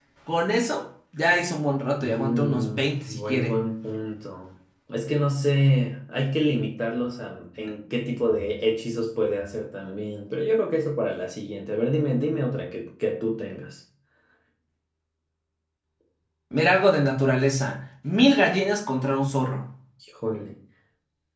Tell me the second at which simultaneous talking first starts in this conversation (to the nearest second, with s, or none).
2 s